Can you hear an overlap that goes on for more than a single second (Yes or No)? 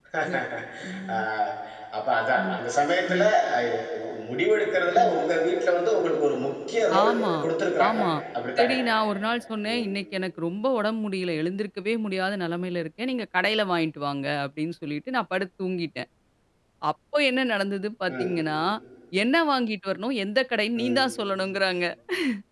No